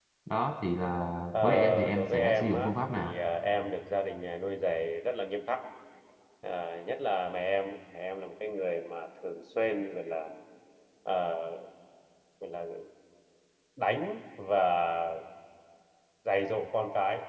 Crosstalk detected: Yes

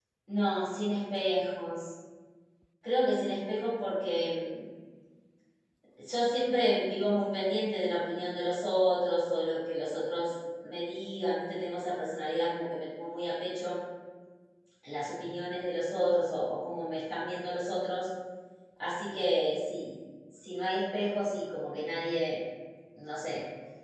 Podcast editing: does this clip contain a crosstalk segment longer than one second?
No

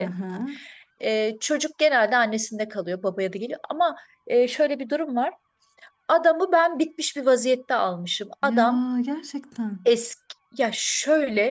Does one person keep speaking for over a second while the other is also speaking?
No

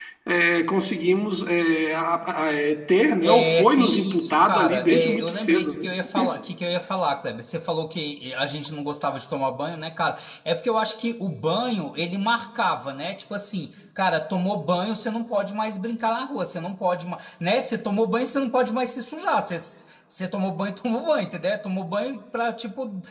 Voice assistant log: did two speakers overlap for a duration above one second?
Yes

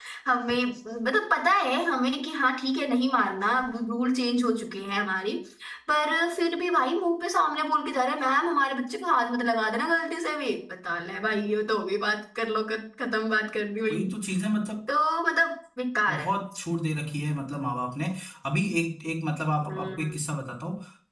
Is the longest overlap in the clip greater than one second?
No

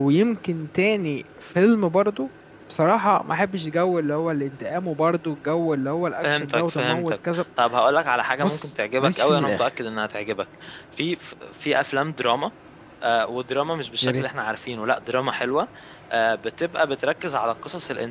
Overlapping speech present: Yes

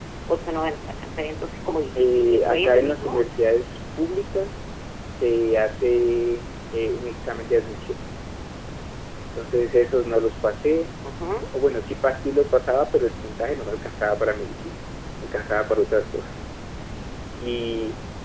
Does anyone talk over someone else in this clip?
Yes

